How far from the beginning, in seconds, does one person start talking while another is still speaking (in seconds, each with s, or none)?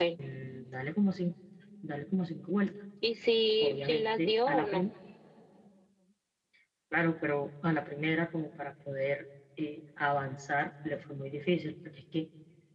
3.6 s